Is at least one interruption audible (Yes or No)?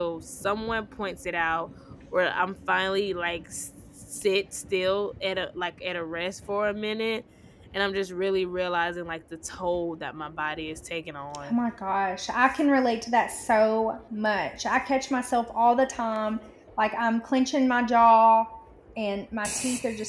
No